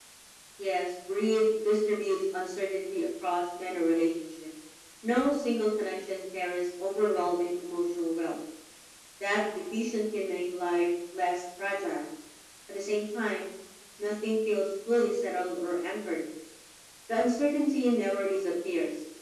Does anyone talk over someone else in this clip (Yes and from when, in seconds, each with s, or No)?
No